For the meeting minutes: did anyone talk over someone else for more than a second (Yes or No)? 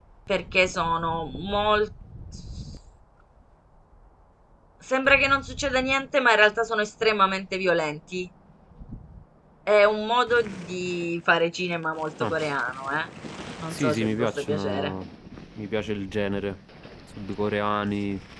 Yes